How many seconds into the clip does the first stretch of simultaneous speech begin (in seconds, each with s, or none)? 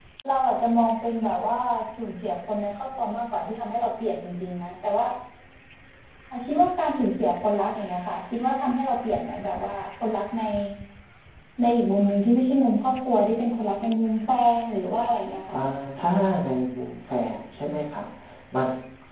none